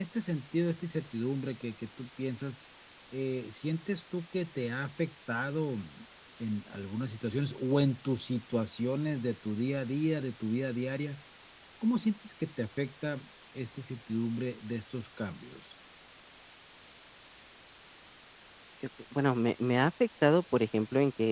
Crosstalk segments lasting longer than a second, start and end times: none

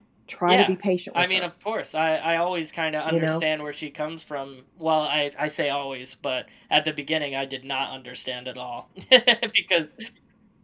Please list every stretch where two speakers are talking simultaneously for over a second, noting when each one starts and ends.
none

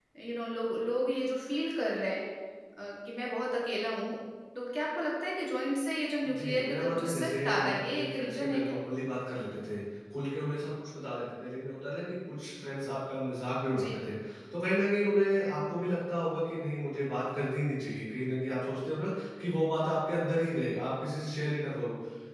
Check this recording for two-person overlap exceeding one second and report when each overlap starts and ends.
6.2-8.8

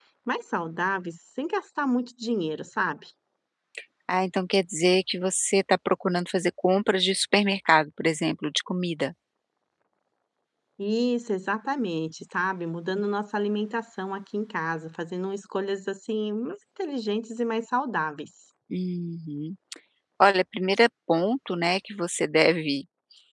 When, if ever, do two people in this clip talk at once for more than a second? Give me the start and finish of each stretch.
none

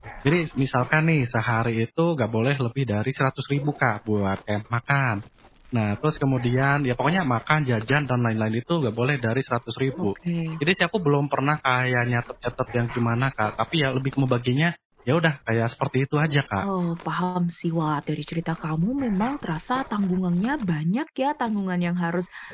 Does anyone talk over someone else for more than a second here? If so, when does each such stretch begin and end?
none

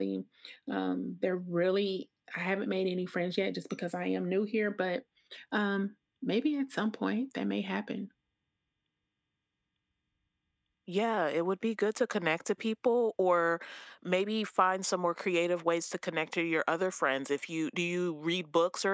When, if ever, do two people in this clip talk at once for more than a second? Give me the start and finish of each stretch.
none

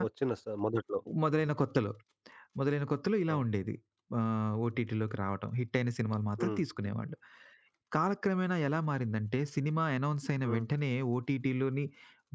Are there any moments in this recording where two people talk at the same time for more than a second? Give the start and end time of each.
none

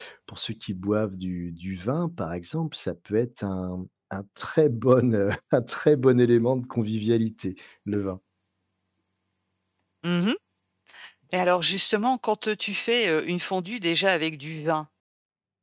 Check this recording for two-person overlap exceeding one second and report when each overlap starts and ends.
none

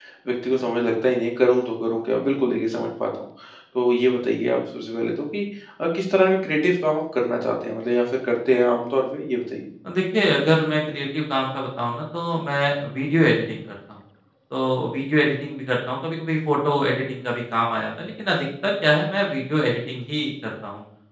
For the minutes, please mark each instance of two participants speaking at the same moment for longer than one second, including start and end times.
none

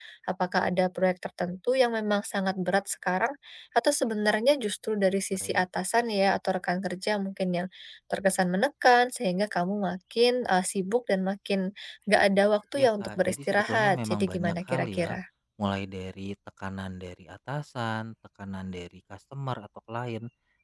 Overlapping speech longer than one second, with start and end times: 12.8-15.1

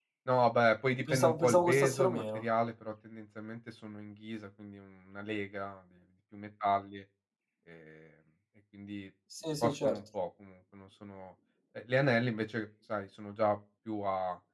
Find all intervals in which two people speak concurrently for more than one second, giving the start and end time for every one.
1.1-2.4

